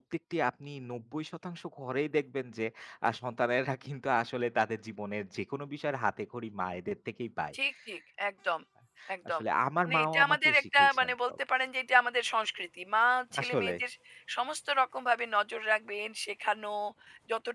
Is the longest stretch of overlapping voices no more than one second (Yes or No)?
No